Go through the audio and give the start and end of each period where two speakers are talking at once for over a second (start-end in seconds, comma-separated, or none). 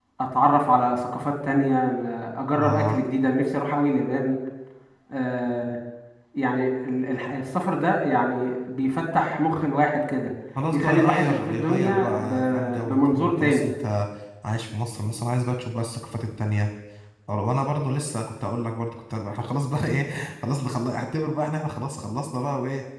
10.7-13.6